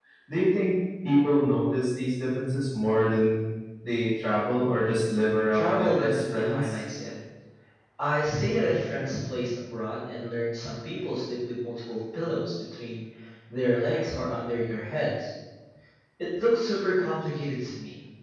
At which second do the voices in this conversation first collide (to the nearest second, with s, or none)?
6 s